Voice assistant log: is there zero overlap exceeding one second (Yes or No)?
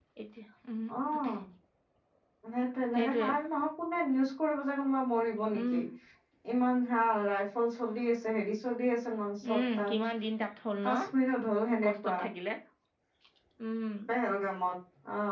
Yes